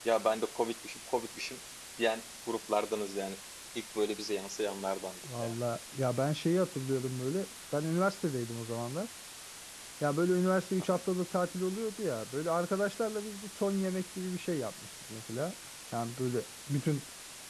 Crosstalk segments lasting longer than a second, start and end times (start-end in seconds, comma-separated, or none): none